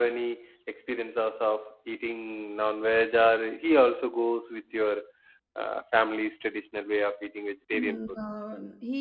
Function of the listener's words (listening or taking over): taking over